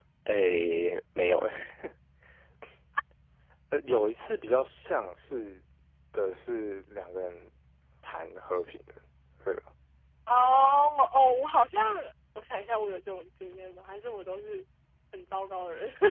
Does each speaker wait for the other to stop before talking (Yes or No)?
Yes